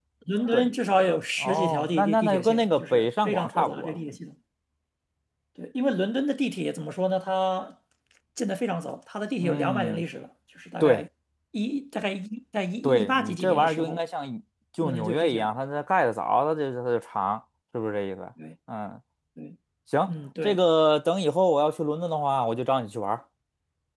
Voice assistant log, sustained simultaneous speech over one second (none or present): present